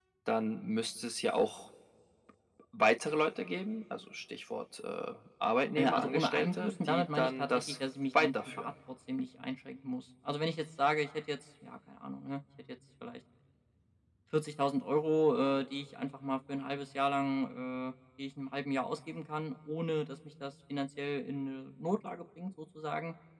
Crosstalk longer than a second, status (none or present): present